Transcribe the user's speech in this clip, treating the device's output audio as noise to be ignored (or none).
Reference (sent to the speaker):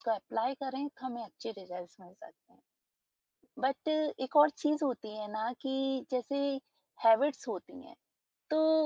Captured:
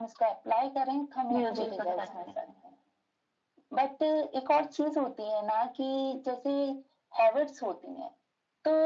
म्यूज़िक सुन सकते हैं।